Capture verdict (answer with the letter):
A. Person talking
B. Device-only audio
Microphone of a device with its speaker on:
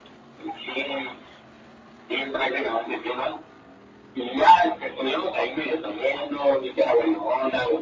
B